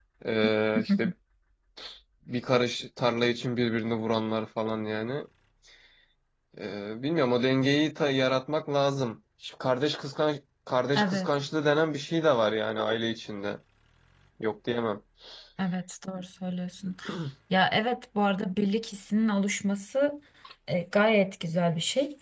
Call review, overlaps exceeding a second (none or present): none